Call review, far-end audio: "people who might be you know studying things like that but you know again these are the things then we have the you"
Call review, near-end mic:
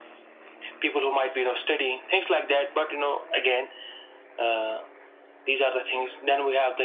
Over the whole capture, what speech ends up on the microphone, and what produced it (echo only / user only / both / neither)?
echo only